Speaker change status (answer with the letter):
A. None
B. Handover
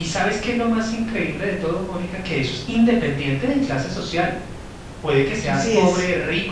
A